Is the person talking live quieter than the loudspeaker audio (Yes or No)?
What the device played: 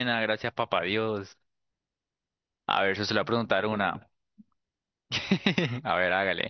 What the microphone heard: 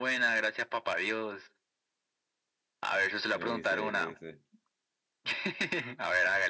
Yes